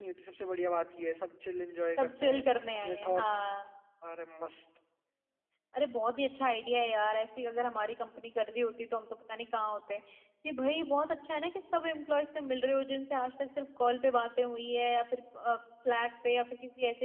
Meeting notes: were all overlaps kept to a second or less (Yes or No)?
No